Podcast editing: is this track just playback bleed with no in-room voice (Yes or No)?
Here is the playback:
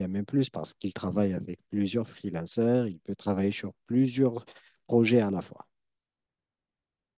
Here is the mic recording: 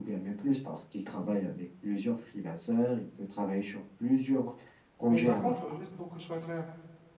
No